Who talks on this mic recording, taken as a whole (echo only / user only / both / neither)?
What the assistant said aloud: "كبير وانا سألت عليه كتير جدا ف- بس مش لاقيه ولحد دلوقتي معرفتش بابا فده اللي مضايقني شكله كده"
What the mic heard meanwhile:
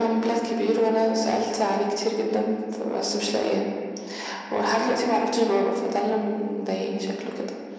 echo only